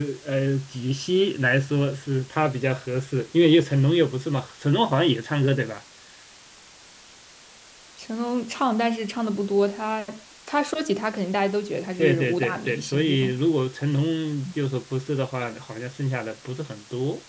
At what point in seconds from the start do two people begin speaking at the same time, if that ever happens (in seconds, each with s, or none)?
12.0 s